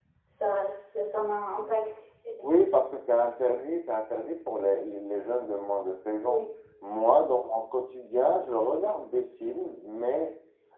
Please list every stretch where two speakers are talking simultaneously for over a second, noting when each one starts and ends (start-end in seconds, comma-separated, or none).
none